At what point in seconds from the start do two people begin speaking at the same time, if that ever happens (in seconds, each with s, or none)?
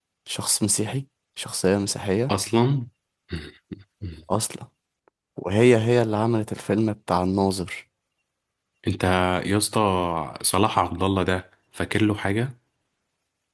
none